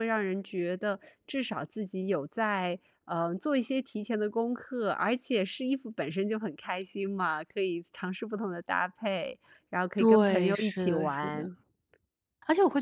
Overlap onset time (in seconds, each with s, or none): 10.0 s